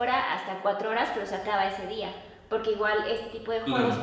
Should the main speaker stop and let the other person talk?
No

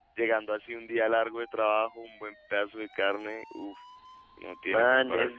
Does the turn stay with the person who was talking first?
No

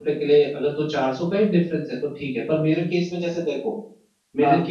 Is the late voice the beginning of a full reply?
No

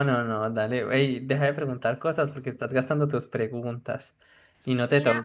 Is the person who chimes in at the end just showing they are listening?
No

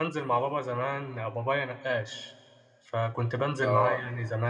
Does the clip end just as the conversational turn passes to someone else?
No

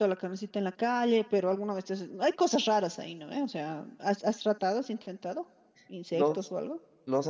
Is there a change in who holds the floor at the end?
Yes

